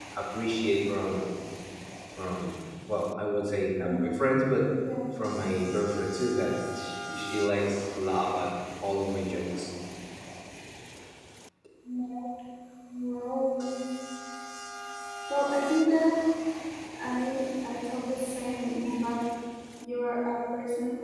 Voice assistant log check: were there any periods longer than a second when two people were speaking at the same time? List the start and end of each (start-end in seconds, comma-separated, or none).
none